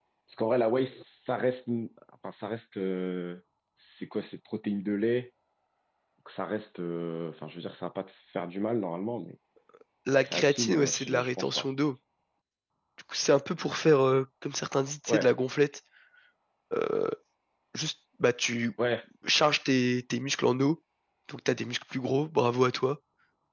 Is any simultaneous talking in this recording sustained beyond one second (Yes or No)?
Yes